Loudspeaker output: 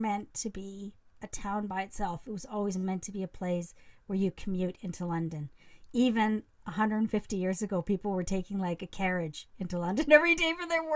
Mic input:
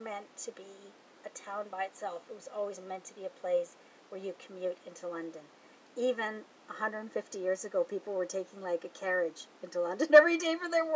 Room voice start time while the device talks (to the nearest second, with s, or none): none